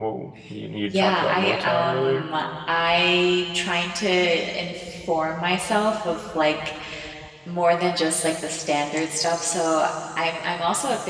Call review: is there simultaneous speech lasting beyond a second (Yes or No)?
Yes